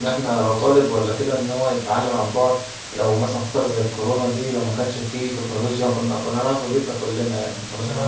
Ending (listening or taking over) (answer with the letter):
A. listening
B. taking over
B